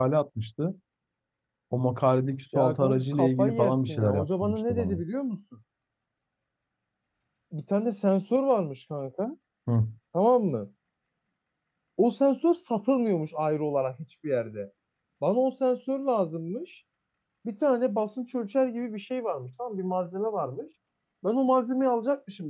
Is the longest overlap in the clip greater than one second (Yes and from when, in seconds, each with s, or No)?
Yes, from 2.6 s